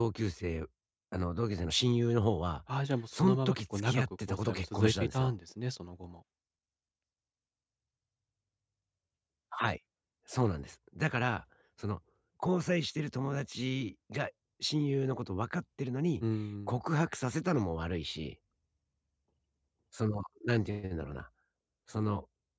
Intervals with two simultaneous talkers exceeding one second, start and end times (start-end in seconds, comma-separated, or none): 3.1-5.3